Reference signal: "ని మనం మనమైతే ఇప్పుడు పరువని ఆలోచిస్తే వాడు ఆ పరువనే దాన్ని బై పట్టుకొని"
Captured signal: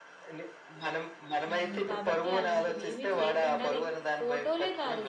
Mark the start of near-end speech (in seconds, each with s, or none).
1.5 s